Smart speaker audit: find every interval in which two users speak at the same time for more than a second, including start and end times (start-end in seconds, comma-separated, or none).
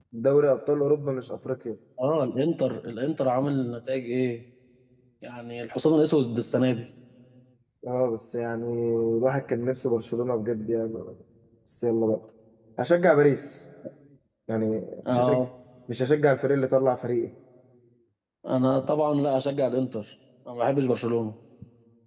none